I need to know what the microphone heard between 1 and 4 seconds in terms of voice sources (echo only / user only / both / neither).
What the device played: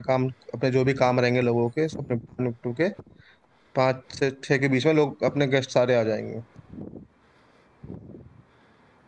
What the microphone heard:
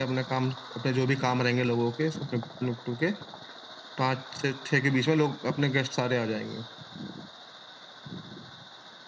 echo only